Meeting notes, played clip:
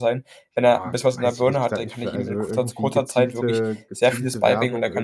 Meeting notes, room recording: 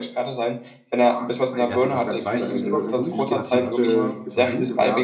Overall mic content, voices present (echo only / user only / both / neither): both